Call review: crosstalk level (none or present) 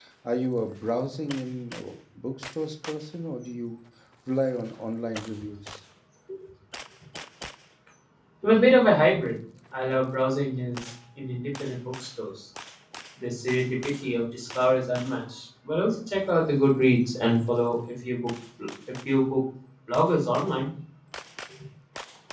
none